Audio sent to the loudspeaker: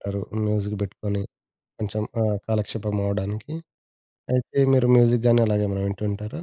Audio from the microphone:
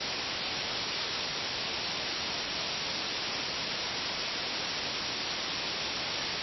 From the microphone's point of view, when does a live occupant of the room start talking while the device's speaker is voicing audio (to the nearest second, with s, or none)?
none